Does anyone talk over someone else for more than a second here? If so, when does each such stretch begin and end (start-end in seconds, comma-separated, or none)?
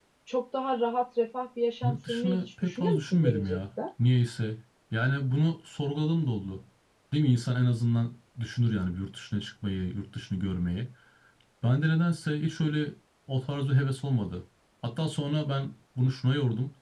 1.8-3.6